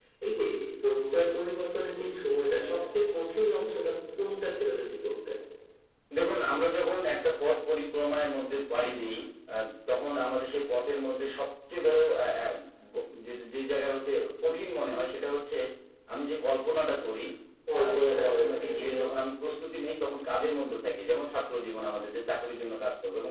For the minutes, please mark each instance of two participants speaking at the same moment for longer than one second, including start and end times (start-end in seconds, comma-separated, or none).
17.8-19.0